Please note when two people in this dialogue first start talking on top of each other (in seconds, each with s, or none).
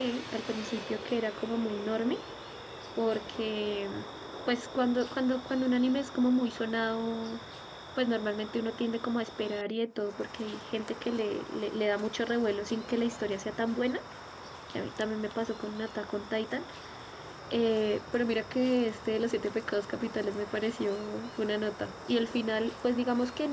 none